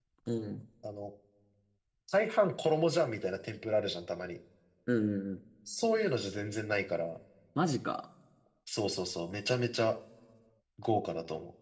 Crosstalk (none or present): none